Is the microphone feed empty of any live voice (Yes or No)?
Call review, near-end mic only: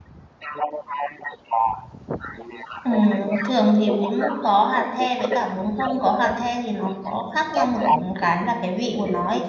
No